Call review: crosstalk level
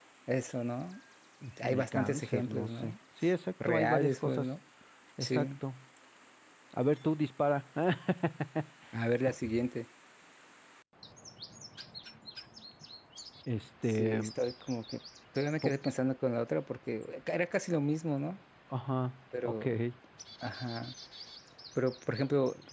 present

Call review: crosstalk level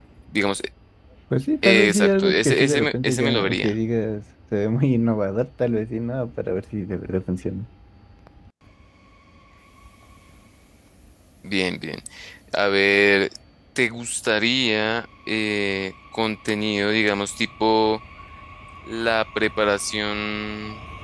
present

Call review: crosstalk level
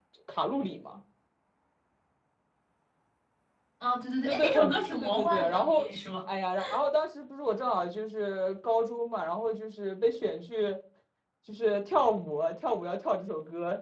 present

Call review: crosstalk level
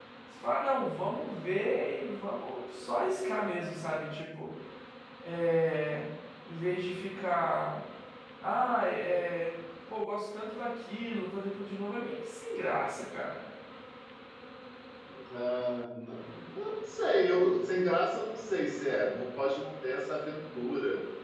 none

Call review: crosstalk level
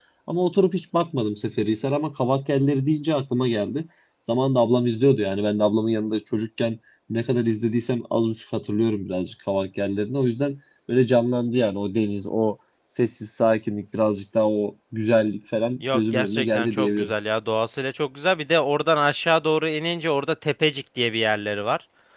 present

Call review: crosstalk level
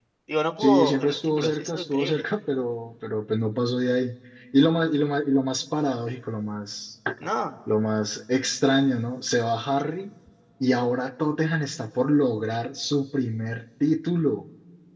present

